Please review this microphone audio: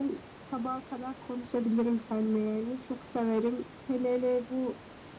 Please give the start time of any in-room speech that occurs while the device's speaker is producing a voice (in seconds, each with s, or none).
none